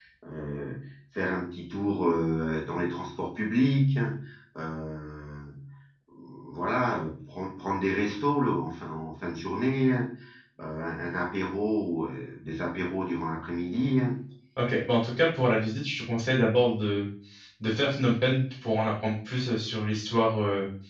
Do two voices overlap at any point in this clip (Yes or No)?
No